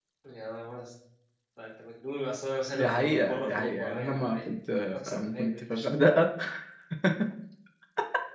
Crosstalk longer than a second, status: present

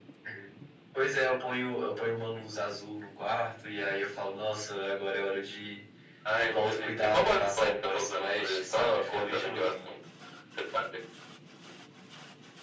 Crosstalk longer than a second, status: present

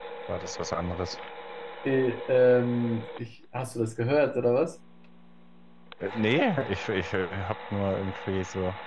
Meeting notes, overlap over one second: none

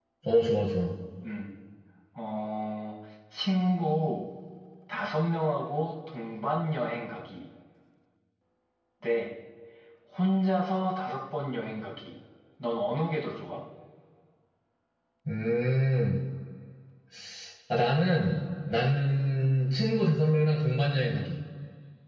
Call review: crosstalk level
none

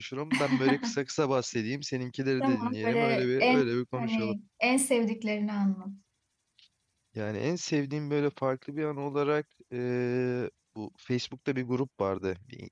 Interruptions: present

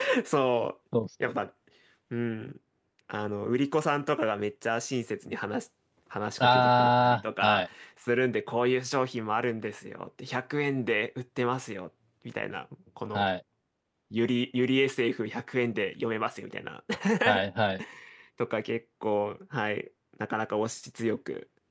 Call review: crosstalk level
present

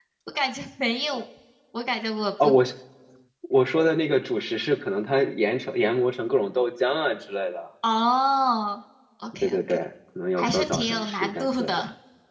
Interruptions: present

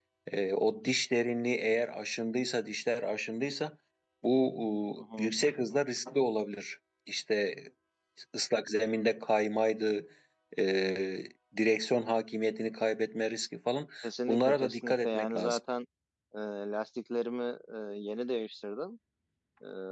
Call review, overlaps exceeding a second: present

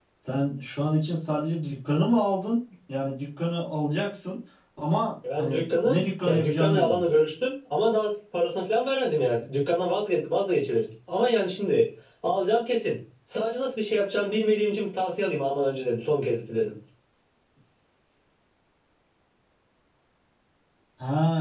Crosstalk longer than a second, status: present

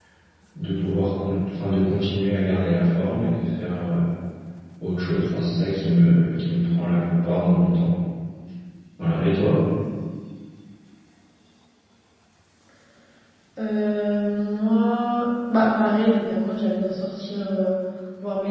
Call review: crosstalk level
none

